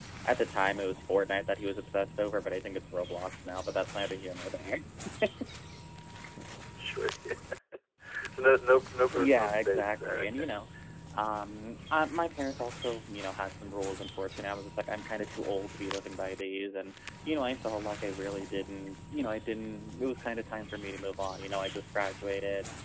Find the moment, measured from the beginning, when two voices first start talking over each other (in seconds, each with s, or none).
9.1 s